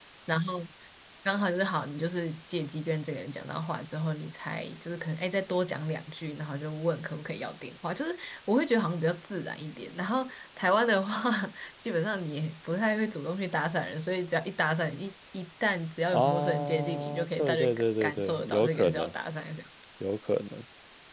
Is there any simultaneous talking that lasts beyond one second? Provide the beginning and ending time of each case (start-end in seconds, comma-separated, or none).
16.1-19.1